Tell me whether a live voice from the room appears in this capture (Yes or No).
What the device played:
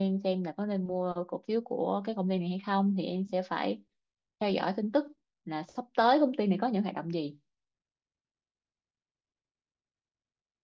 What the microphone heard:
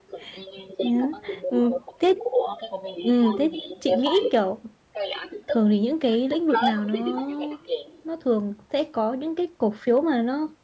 Yes